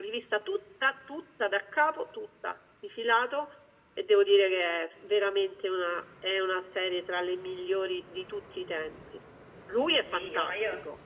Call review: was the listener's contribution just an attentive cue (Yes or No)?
No